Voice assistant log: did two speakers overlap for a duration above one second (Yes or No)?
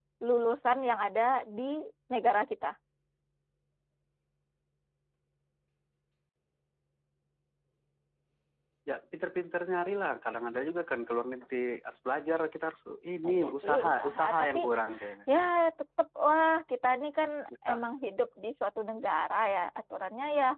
Yes